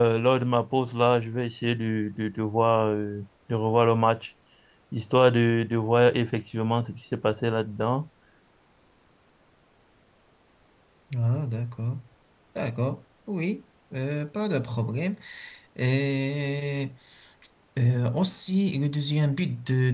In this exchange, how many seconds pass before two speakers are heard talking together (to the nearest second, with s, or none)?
none